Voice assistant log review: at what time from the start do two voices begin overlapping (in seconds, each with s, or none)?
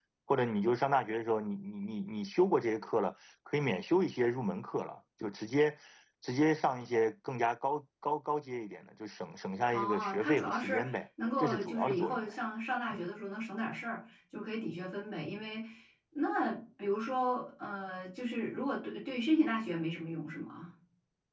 9.7 s